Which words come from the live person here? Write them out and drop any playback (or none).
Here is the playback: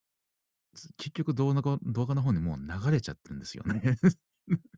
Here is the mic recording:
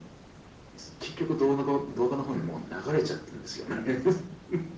none